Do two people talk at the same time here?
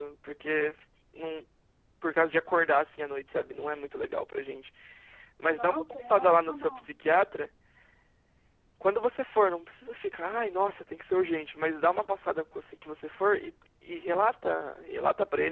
Yes, from 5.5 s

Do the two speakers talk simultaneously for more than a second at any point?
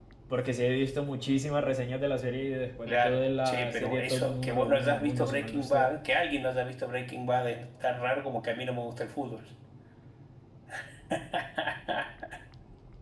Yes, from 2.8 s

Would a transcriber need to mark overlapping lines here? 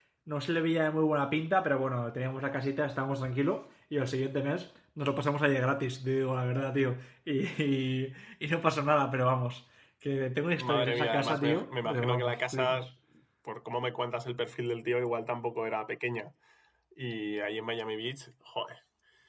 Yes, from 10.6 s

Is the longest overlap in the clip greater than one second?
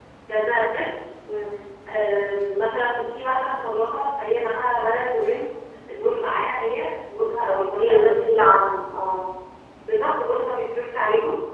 Yes, from 7.1 s

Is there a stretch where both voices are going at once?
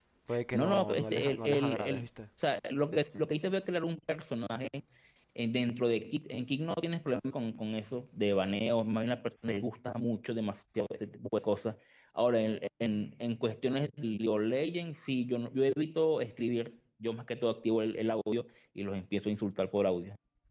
Yes, from 0.5 s

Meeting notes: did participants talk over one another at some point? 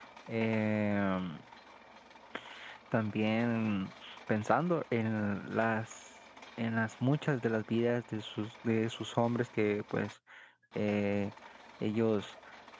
No

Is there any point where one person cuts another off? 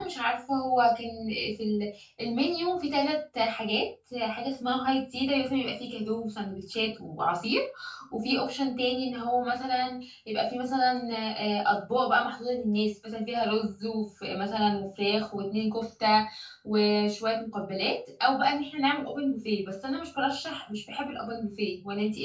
No

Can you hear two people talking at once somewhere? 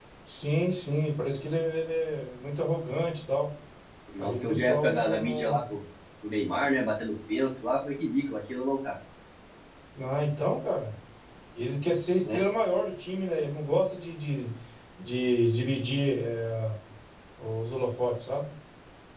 Yes, from 4.2 s

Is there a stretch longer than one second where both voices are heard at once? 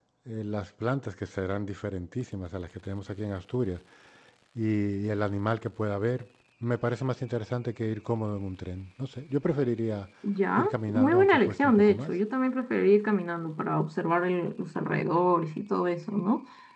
Yes, from 10.5 s

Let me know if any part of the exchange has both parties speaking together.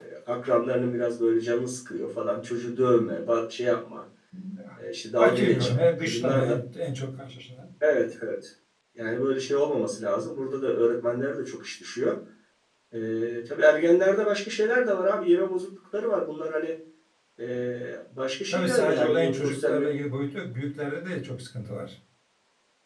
Yes, from 5.2 s

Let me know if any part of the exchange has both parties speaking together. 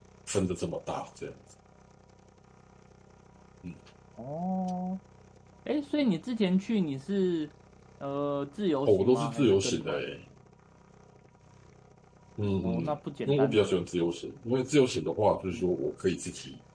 Yes, from 8.9 s

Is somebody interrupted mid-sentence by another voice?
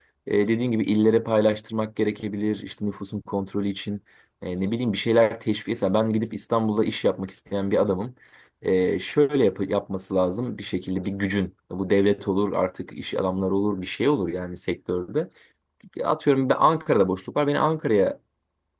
No

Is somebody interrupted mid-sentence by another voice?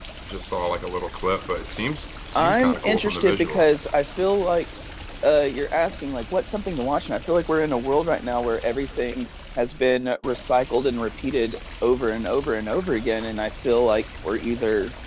Yes, from 2.4 s

